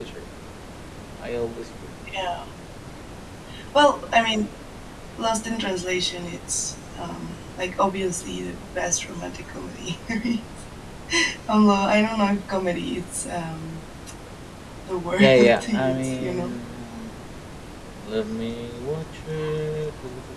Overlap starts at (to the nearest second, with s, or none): 15 s